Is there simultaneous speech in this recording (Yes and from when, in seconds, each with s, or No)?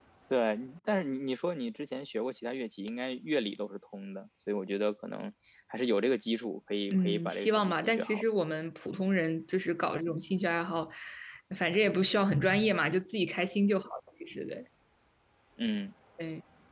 Yes, from 6.9 s